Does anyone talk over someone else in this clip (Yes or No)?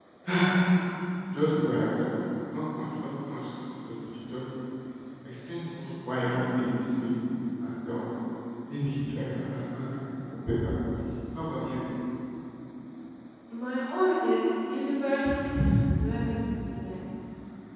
No